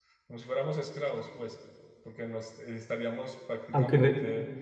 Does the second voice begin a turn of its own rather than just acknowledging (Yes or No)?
No